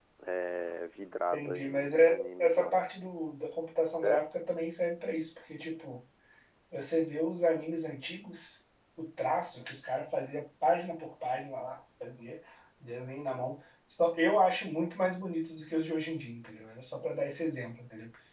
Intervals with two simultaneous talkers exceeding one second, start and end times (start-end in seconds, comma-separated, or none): 1.3-2.8